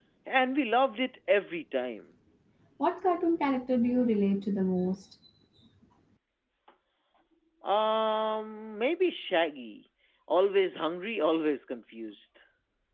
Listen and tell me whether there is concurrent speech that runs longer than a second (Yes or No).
No